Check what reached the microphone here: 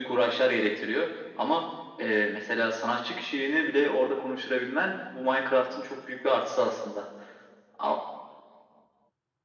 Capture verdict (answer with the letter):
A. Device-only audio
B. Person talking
A